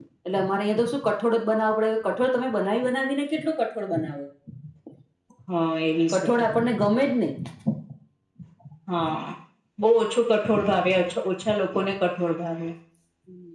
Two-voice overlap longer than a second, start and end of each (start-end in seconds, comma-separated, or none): none